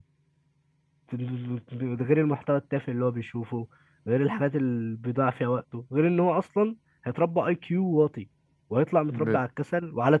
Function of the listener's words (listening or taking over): listening